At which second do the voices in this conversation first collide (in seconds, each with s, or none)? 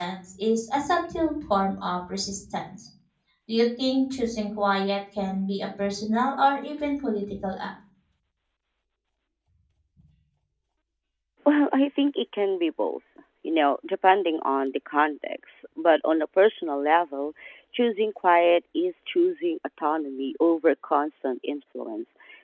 none